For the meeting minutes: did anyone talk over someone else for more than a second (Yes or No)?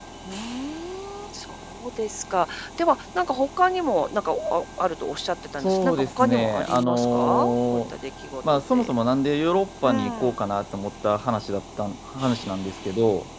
Yes